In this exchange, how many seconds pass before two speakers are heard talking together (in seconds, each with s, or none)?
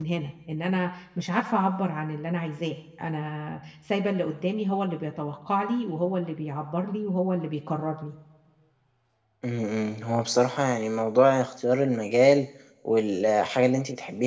none